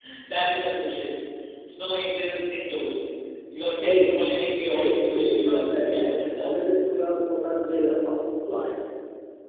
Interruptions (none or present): present